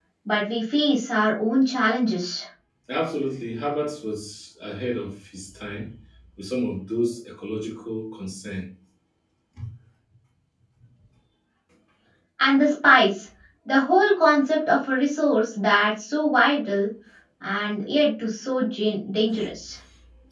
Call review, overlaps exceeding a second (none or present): none